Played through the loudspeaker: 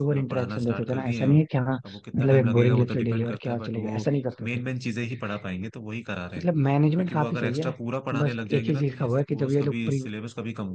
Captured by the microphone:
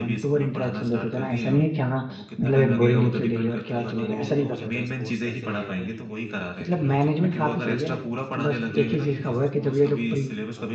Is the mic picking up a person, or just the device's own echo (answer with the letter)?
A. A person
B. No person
A